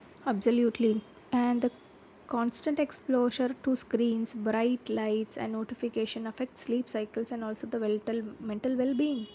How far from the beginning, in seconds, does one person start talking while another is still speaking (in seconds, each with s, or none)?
none